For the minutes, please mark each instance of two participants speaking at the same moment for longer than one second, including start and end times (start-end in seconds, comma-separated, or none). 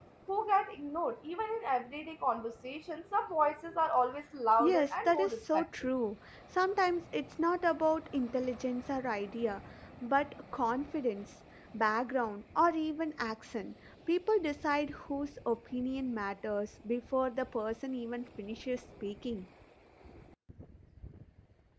4.6-5.9